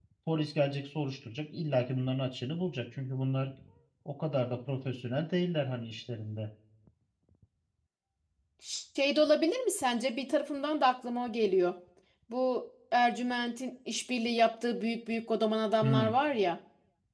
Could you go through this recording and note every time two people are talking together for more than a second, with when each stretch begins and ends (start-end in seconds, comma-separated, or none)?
none